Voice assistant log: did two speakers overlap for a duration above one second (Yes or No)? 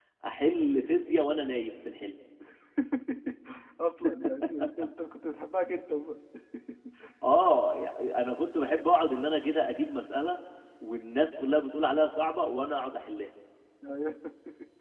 No